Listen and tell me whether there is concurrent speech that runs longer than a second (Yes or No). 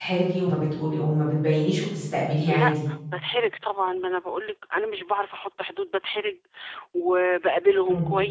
No